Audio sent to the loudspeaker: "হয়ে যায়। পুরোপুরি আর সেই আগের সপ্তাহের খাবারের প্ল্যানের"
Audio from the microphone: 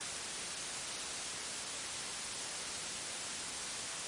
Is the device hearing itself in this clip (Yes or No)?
No